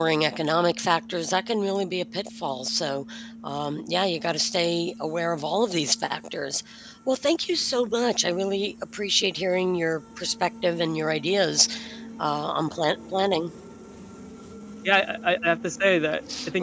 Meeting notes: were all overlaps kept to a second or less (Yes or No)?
Yes